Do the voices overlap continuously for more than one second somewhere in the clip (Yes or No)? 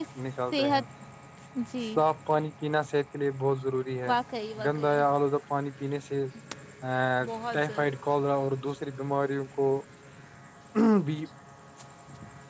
No